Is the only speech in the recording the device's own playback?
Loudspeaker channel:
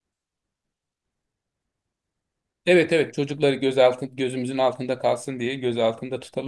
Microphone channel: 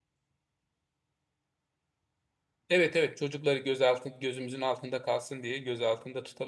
Yes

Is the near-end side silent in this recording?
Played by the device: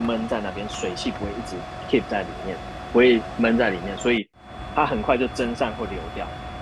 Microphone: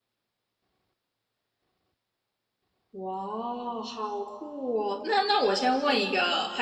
No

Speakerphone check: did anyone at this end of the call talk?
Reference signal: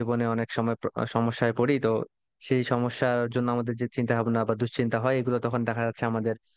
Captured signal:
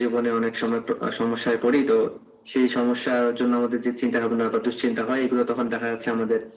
No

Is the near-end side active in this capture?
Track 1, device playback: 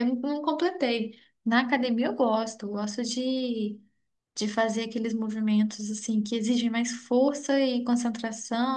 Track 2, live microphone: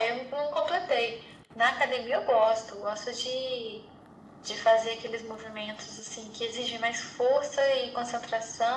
No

